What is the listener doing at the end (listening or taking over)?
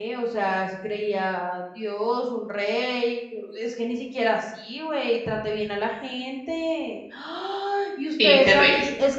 listening